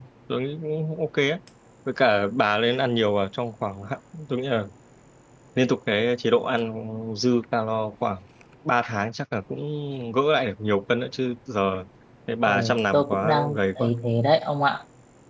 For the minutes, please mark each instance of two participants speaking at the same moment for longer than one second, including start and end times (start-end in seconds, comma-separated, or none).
12.4-13.9